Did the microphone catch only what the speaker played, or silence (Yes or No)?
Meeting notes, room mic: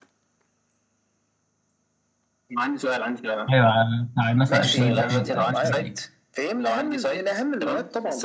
No